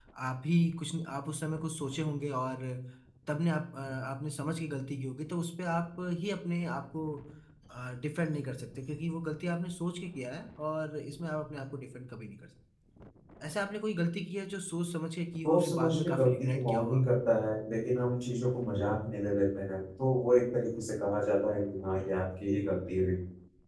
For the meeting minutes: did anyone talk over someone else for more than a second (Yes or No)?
Yes